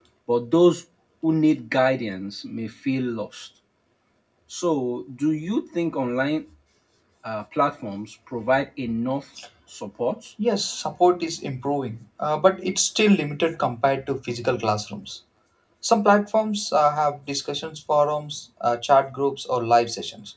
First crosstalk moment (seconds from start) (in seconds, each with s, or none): none